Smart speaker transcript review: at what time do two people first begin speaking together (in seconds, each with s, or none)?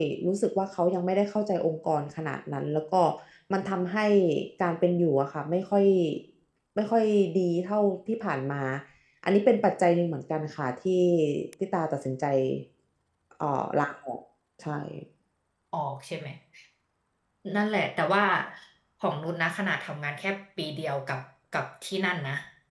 none